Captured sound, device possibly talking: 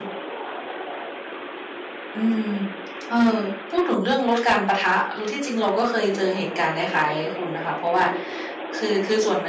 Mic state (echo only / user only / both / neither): user only